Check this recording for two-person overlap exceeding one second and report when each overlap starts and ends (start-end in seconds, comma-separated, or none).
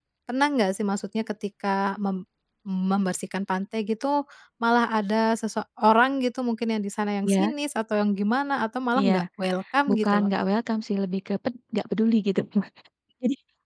none